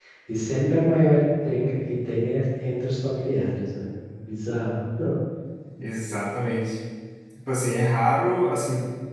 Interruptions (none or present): none